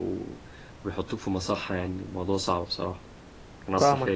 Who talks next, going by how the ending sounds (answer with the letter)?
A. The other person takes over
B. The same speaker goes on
A